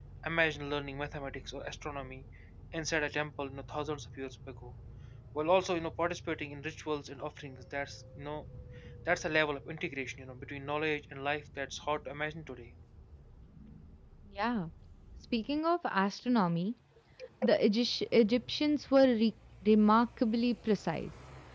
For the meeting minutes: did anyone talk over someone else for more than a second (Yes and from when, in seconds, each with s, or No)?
No